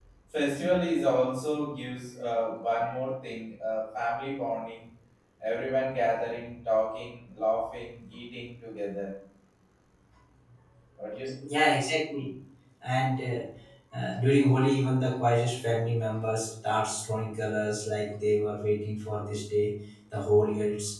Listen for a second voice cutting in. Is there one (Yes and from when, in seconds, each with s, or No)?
No